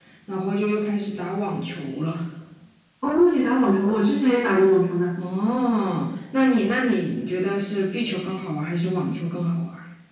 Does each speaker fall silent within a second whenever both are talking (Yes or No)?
Yes